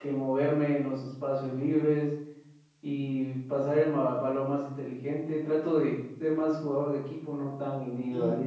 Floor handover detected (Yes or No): Yes